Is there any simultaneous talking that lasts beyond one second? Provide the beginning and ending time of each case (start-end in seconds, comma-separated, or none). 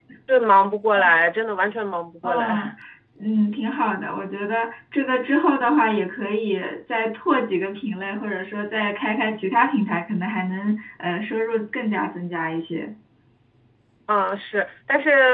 none